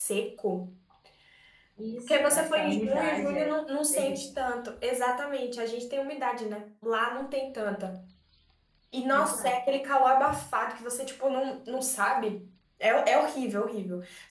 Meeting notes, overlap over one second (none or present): present